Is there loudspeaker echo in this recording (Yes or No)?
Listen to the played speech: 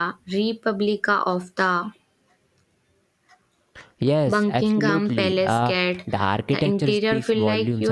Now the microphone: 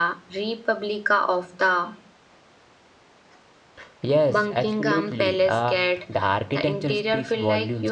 Yes